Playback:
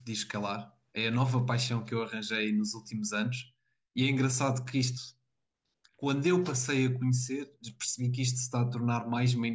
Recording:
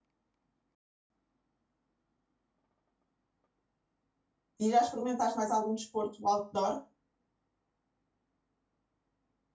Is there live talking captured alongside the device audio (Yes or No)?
Yes